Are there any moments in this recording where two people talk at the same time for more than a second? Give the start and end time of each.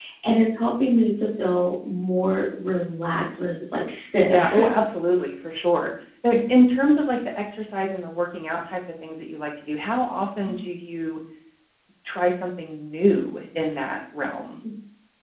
none

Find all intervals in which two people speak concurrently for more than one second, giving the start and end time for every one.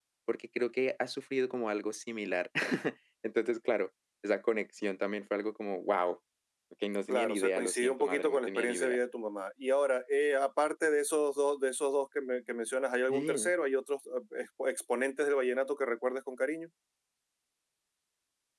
7.1-9.0

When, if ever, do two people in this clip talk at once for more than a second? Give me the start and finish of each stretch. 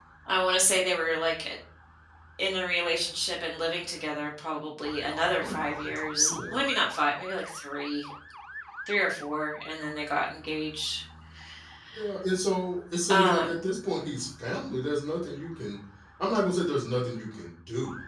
5.4-6.6

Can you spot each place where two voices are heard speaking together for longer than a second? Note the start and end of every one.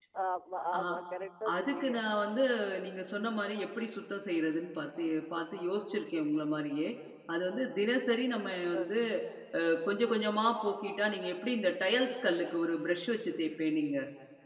none

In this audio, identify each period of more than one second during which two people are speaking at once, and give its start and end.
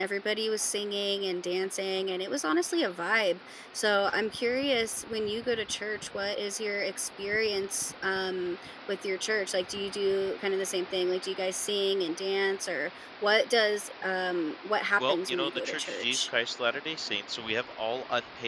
15.0-16.3

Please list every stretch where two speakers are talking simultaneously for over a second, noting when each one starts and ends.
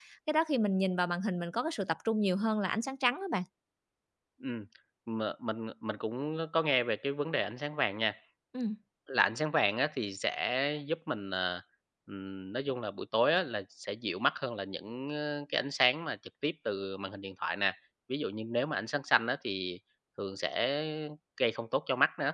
none

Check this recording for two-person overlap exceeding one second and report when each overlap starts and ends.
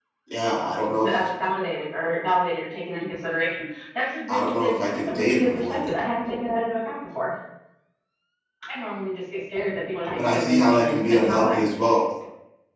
4.3-5.9, 10.2-11.6

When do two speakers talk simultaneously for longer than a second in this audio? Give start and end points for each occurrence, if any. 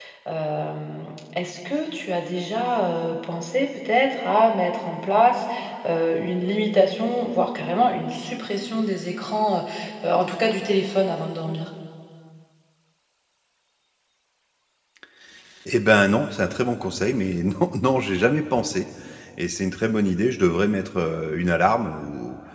none

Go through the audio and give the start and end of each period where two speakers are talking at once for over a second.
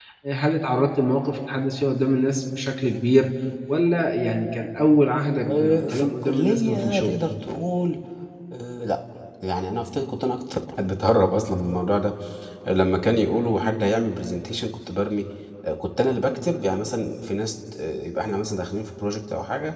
5.5-7.1

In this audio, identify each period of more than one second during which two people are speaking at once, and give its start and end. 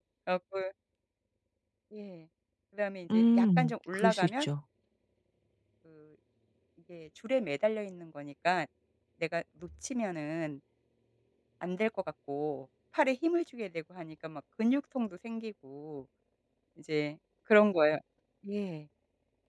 3.1-4.5

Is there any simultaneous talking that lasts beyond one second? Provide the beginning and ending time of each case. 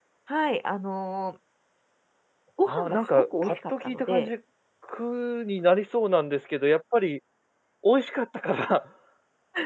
2.6-4.3

